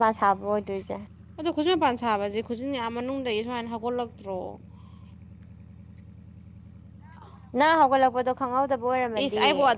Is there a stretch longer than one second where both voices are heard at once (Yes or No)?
No